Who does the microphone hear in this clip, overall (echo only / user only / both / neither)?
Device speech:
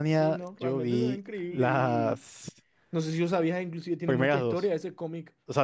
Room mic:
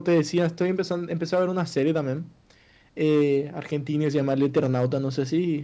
user only